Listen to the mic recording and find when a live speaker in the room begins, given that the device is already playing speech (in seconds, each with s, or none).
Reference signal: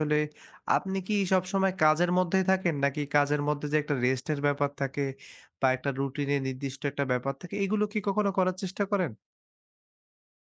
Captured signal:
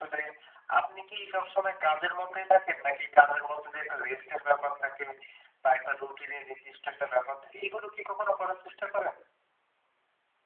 none